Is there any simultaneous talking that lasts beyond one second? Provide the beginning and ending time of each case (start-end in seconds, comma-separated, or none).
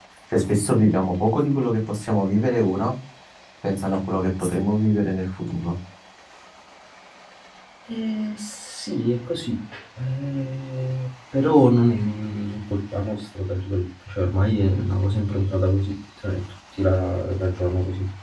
none